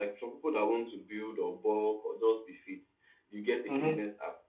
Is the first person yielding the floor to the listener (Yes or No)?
No